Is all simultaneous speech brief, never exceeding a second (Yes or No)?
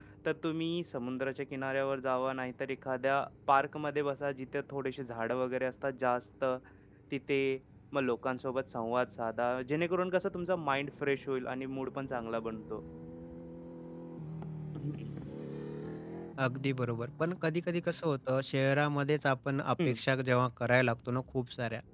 Yes